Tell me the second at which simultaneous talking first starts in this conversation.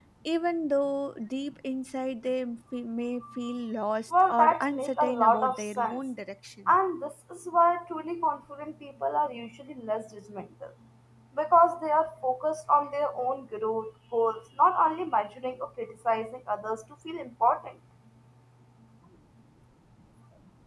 4.3 s

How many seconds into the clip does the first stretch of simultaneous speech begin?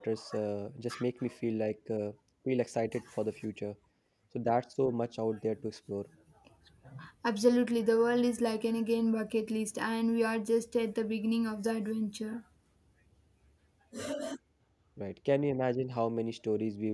none

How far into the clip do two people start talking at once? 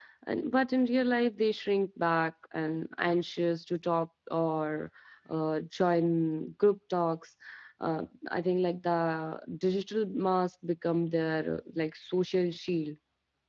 none

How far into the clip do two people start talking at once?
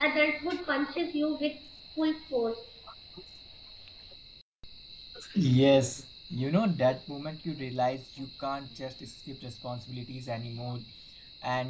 none

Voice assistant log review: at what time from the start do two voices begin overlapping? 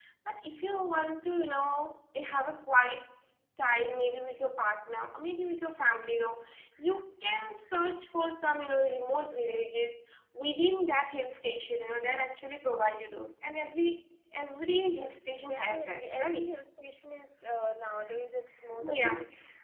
14.8 s

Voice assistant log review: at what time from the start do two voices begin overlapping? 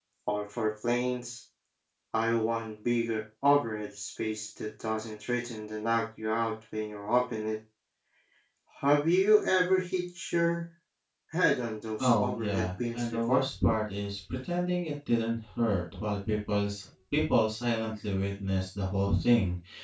12.0 s

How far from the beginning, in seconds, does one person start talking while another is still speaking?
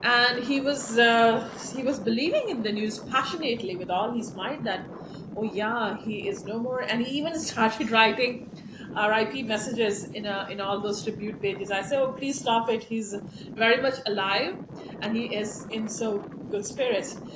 none

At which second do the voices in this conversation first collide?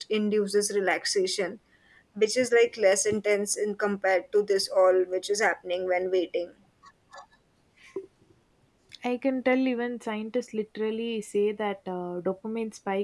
none

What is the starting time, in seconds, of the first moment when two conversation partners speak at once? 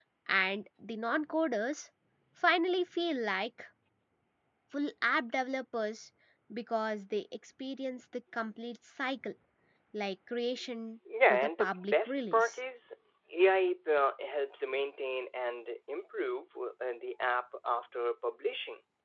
11.1 s

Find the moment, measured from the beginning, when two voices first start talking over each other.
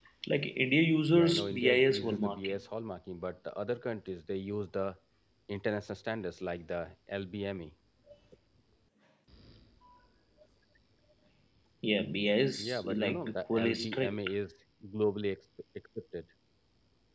1.1 s

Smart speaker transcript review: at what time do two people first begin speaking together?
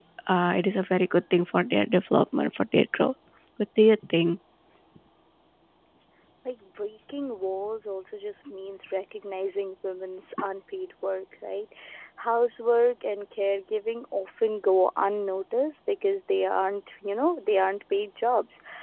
none

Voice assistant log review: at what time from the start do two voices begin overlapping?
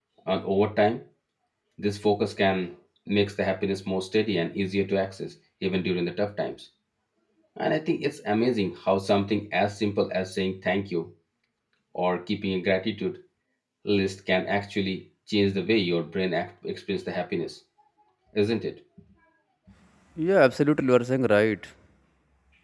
none

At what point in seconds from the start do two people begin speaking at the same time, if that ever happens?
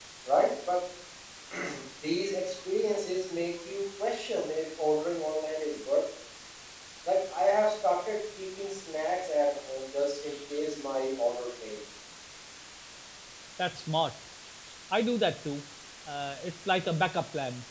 none

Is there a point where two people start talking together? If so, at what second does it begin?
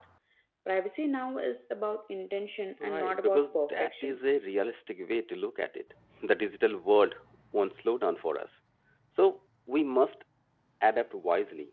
2.8 s

